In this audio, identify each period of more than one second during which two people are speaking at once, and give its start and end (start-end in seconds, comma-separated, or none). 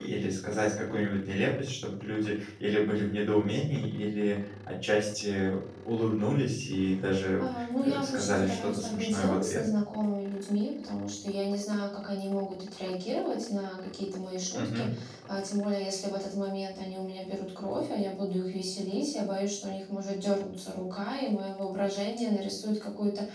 7.4-9.6